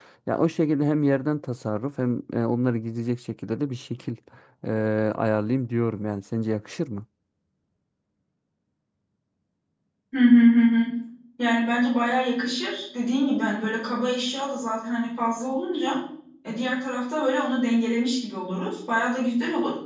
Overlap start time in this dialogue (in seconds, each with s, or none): none